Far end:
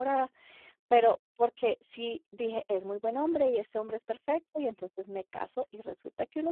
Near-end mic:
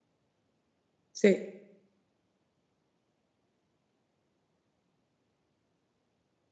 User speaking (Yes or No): Yes